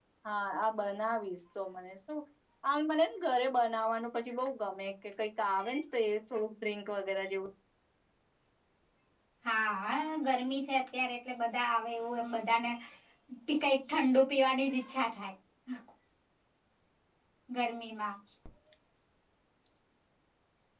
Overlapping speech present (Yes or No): No